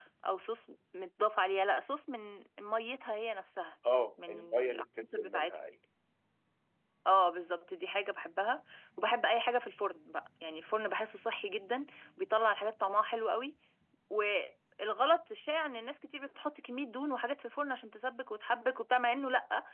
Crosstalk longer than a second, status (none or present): present